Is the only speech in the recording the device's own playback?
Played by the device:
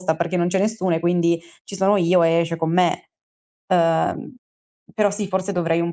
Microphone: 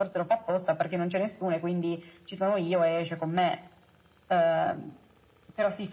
Yes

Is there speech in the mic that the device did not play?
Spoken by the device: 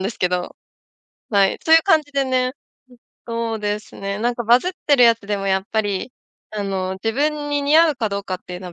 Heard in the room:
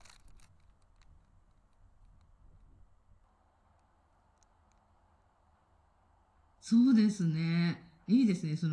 Yes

